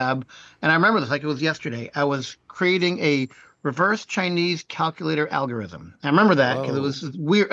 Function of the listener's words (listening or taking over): listening